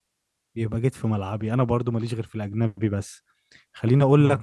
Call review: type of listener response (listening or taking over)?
listening